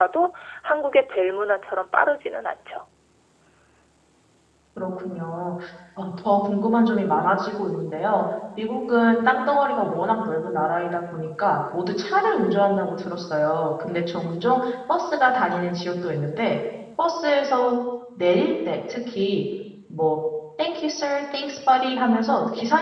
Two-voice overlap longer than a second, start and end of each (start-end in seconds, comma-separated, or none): none